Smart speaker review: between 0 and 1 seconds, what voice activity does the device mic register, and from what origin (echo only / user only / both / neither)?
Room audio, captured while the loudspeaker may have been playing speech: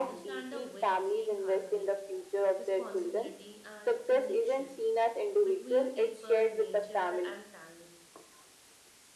both